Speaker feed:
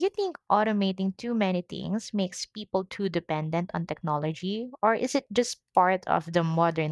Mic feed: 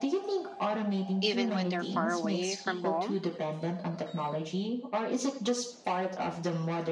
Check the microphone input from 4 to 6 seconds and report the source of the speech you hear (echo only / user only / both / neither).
echo only